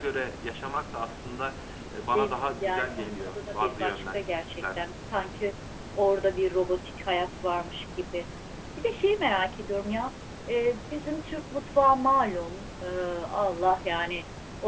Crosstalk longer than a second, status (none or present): present